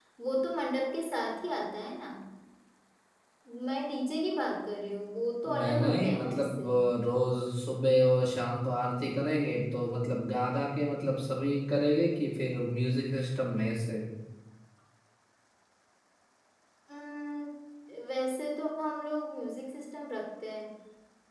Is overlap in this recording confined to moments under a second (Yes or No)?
No